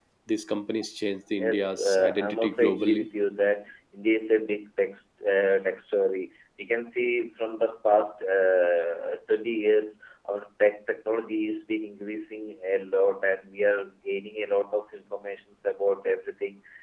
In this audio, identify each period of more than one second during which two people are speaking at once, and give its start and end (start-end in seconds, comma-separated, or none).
1.4-3.1